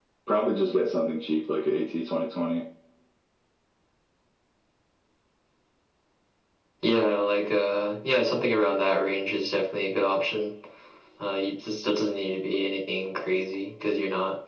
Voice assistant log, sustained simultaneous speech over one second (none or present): none